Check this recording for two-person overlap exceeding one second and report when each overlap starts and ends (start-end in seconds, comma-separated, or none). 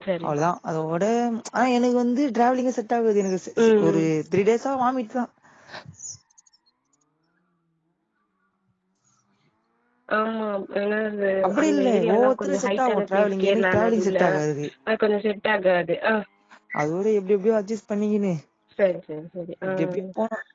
11.5-14.2